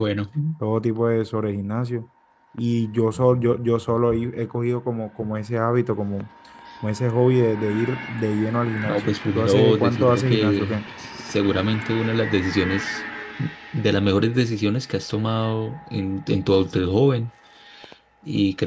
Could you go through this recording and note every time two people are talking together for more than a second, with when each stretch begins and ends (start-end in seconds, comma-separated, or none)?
8.8-10.8